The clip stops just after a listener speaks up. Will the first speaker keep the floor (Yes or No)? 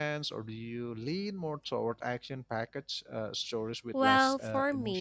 No